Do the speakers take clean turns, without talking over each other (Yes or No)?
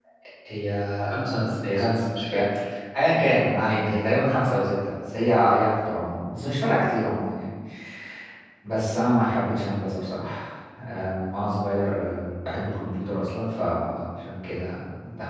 No